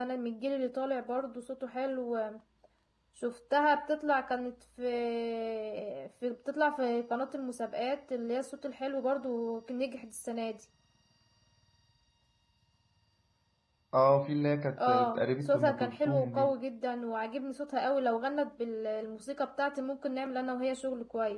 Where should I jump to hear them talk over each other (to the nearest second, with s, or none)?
15 s